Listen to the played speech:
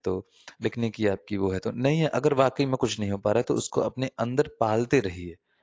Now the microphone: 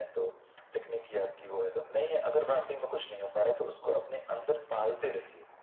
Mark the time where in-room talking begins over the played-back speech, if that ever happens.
none

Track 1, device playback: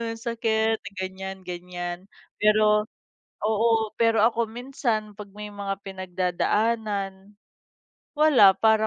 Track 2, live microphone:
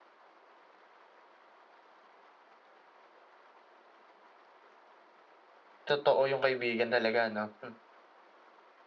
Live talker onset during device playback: 5.9 s

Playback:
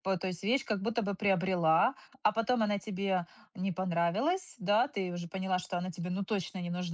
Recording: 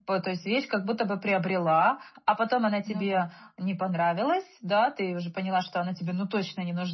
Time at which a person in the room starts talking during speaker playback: 2.9 s

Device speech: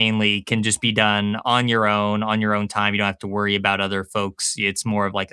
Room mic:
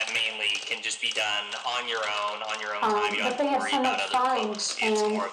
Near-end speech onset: 2.8 s

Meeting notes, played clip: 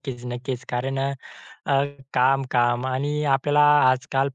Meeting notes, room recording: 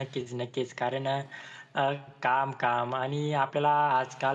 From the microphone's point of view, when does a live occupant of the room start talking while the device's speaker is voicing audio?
none

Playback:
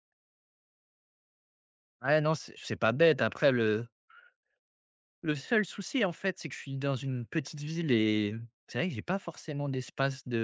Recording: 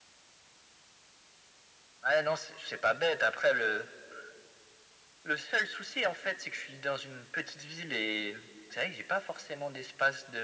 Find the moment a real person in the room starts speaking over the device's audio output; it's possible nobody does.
none

